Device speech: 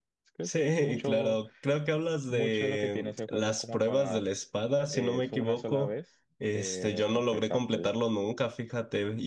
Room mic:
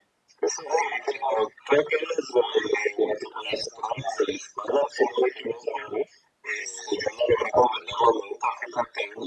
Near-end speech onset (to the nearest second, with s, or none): none